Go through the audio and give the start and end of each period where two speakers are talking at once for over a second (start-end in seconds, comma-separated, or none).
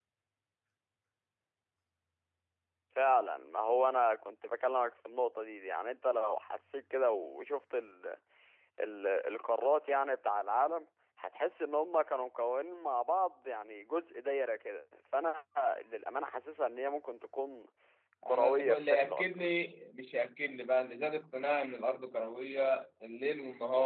18.3-19.5